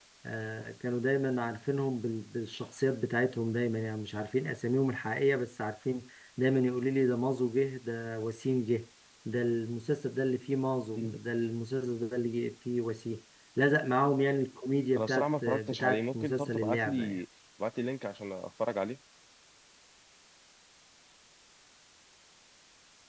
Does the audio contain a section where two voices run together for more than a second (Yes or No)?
Yes